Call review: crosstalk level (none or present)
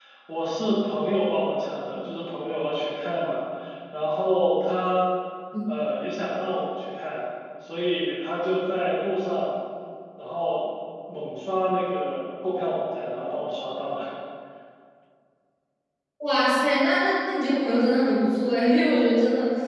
none